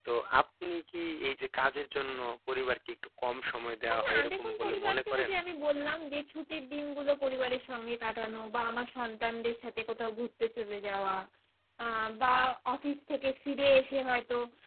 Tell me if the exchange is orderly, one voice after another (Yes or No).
No